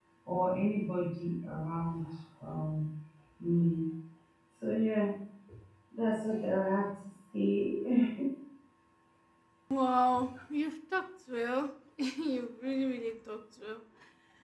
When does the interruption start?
none

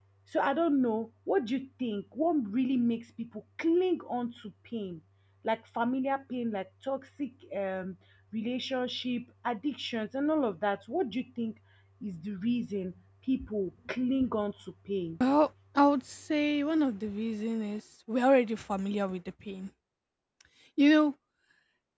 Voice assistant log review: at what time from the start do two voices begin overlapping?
none

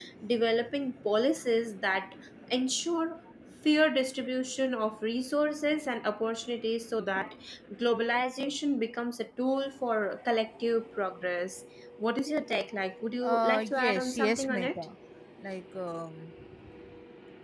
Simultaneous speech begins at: 13.2 s

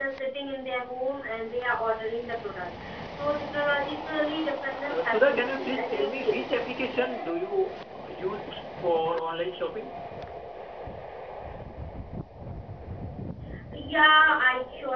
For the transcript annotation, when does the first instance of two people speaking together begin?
4.9 s

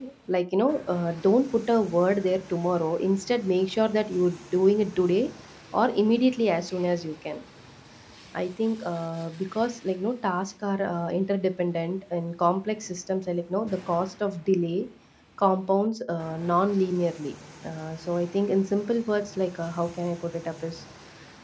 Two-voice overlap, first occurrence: none

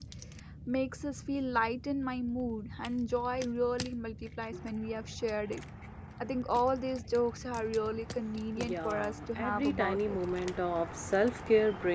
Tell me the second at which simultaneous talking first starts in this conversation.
8.6 s

